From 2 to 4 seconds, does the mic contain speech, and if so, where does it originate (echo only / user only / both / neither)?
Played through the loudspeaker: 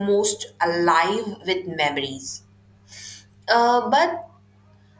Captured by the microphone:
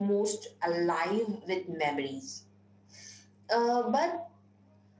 echo only